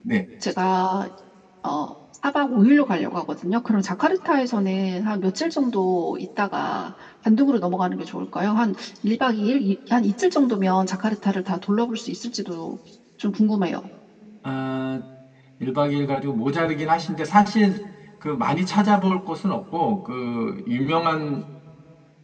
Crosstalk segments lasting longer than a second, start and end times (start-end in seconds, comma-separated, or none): none